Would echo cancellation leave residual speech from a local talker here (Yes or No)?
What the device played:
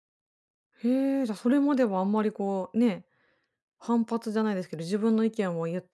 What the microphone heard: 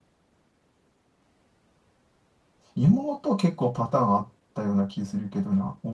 Yes